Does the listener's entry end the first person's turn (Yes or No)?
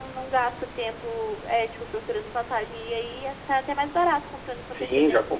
Yes